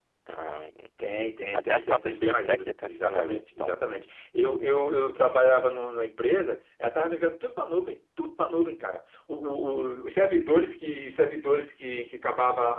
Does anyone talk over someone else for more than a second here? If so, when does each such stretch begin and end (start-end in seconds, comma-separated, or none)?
1.5-3.7